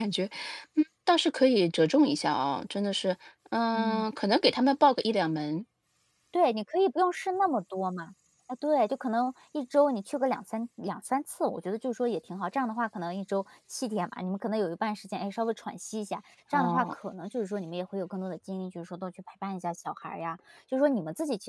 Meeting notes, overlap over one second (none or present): none